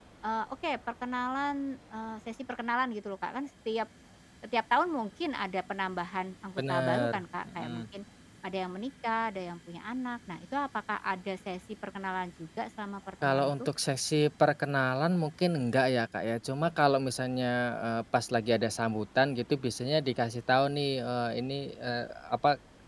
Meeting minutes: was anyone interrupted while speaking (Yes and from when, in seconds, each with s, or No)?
Yes, from 6.6 s